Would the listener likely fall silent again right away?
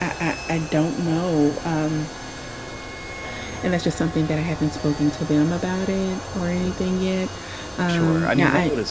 No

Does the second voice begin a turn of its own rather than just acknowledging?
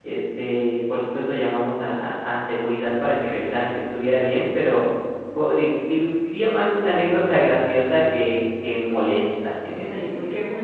Yes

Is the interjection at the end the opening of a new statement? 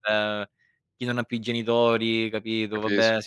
No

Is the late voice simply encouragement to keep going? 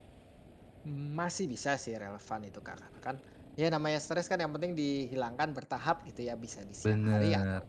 Yes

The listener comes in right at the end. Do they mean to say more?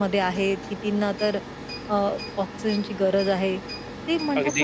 No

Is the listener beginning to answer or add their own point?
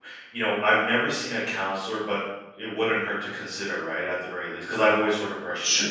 Yes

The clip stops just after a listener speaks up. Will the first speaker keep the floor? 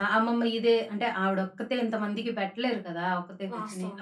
Yes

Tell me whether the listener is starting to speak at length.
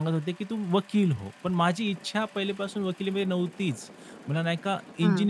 No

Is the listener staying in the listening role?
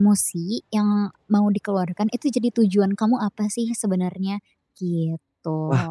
No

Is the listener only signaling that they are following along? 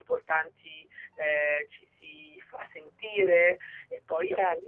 No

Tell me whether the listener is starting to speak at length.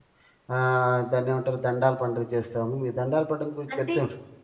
No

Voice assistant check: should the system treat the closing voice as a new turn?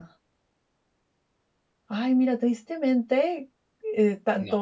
No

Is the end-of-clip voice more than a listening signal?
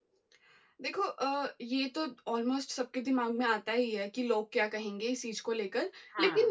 No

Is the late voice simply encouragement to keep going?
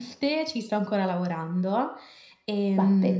Yes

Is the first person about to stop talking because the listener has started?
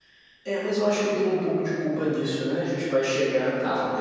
No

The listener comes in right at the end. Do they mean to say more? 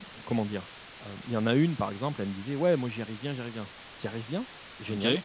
No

